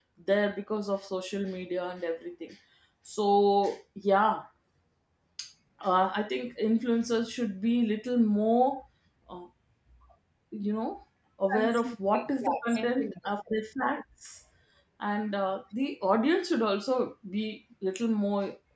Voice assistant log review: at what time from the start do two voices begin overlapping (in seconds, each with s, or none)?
11.5 s